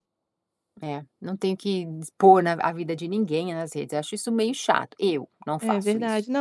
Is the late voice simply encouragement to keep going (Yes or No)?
No